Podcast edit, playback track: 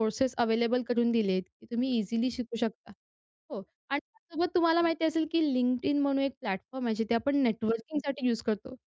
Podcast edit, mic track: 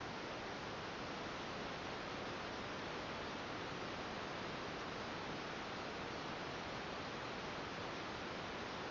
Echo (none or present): none